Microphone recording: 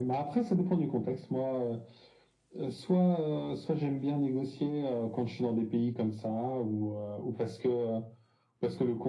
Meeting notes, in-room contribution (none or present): none